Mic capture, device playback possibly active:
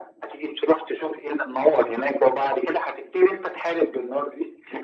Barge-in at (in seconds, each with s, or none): none